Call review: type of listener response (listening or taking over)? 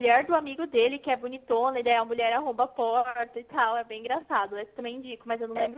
taking over